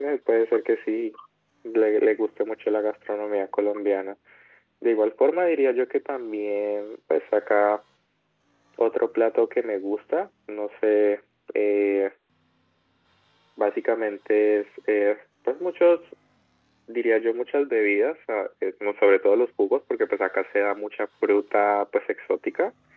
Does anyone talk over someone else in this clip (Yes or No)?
No